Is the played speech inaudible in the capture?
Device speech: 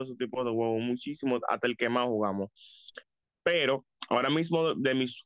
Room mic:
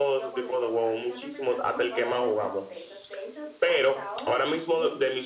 No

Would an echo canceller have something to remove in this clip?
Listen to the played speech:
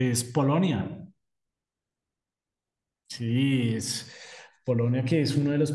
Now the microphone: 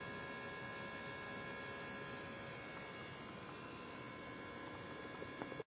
No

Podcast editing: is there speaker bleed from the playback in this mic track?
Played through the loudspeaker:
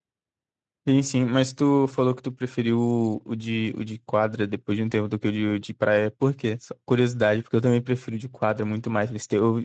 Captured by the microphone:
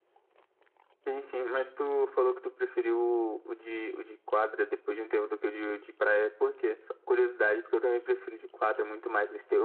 Yes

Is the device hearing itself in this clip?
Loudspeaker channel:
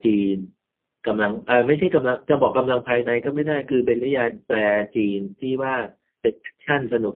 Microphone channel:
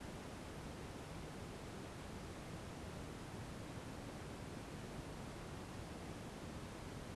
No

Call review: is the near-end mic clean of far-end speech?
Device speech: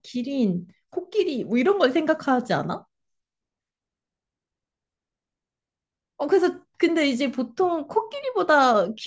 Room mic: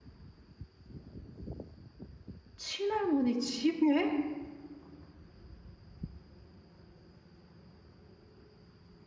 Yes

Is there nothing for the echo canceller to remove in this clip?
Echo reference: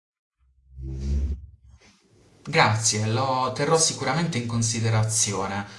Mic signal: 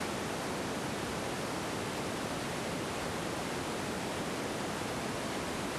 Yes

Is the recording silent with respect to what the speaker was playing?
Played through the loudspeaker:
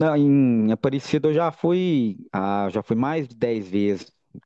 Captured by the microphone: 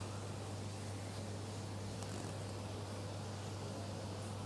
Yes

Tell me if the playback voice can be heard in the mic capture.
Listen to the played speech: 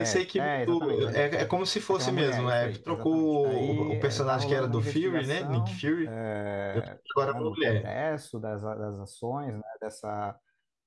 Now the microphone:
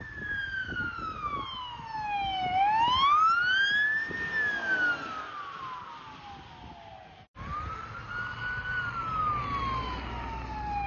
No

